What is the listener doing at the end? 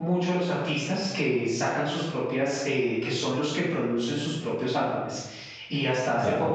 listening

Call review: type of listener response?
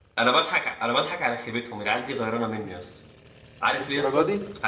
listening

